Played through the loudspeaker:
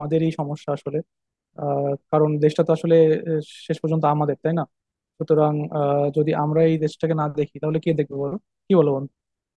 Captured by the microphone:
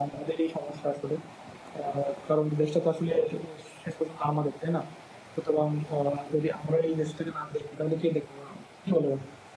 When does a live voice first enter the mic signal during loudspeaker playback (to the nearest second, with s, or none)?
none